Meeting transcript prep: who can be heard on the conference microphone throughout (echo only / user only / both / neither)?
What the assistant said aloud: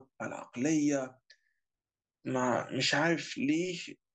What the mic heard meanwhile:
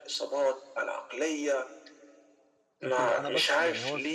both